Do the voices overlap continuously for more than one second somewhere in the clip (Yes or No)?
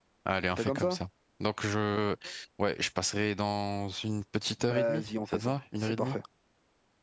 Yes